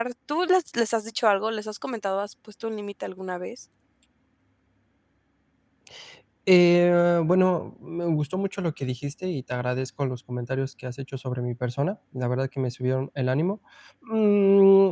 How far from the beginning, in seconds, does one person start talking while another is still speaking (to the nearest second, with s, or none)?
none